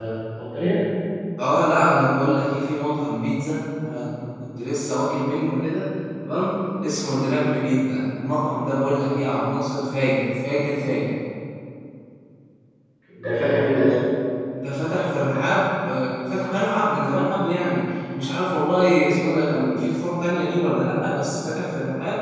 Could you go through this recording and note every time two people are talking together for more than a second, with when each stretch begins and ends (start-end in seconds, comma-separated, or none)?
none